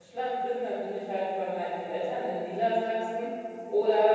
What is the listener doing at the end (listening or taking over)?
listening